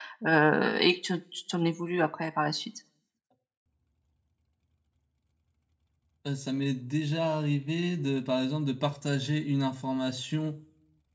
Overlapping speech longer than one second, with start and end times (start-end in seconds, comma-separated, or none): none